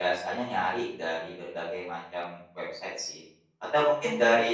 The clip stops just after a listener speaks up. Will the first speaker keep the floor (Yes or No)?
Yes